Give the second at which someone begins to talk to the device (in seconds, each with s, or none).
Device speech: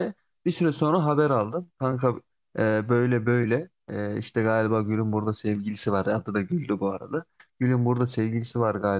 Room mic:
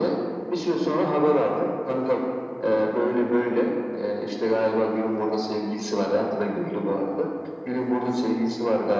none